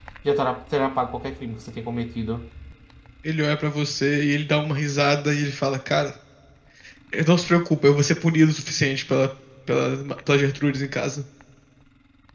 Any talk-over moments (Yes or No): No